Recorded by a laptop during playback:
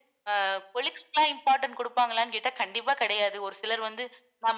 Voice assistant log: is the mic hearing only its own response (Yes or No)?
Yes